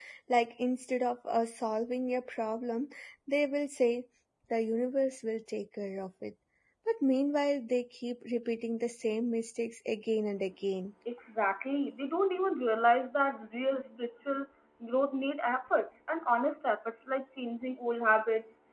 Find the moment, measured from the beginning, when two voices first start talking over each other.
none

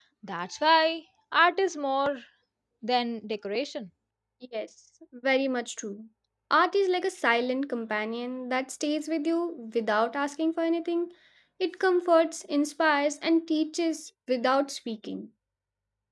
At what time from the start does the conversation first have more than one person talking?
none

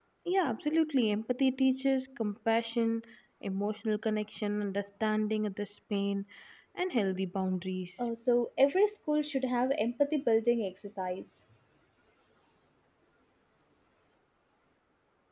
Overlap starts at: none

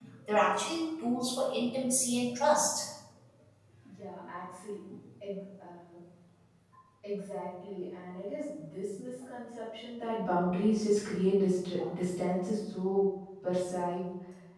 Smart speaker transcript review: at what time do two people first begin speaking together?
none

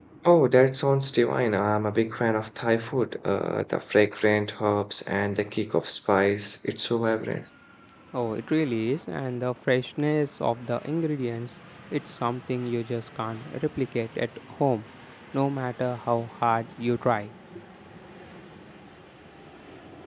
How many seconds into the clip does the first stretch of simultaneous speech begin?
none

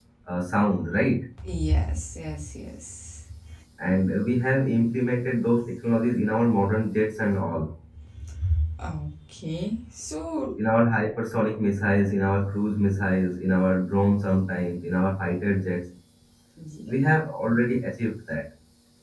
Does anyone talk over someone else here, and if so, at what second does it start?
none

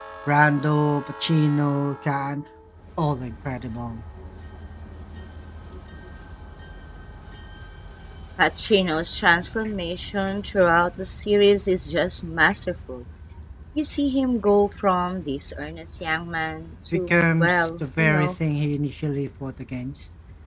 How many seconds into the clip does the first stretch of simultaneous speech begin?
17 s

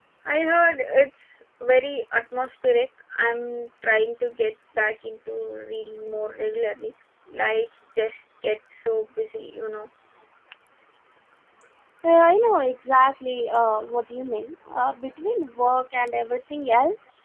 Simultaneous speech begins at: none

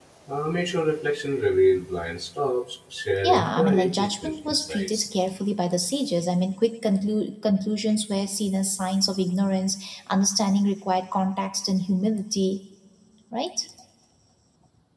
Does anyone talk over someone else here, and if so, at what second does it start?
3 s

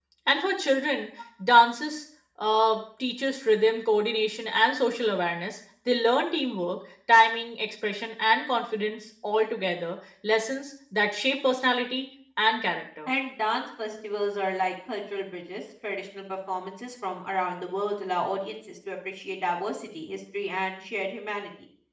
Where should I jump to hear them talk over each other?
none

